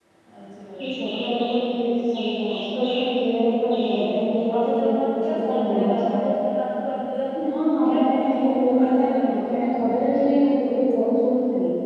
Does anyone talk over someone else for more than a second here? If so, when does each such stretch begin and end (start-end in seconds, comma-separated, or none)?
4.5-6.3, 7.8-9.2